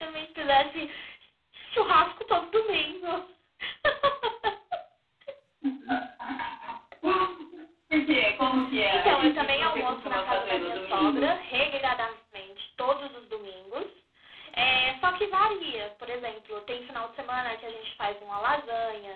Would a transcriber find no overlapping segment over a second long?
No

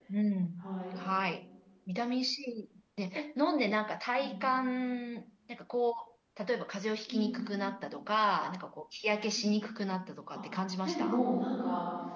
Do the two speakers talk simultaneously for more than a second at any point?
No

